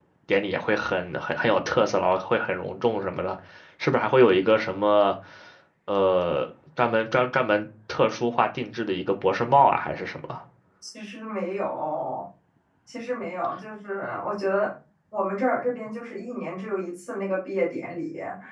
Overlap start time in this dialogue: none

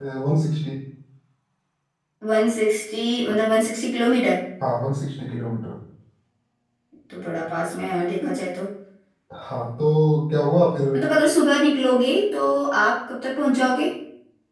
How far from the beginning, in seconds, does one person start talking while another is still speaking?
none

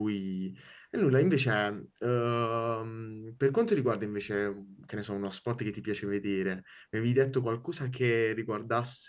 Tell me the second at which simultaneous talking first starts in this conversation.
none

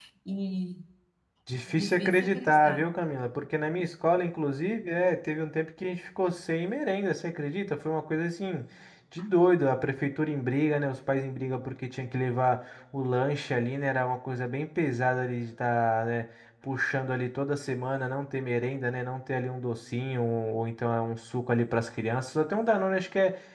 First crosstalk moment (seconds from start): 1.7 s

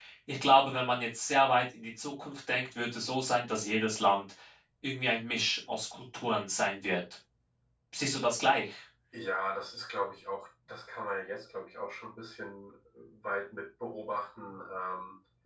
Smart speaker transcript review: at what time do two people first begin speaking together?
none

